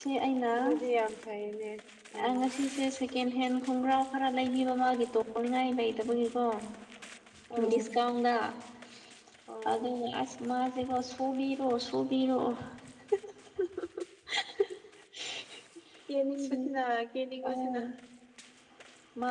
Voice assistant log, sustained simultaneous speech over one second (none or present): none